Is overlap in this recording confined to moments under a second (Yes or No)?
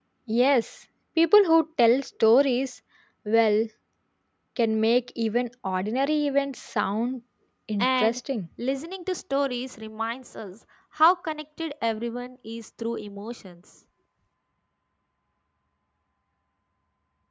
Yes